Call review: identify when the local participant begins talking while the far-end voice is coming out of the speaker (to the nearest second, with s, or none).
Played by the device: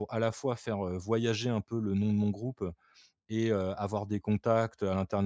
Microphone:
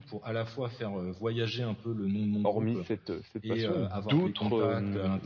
2 s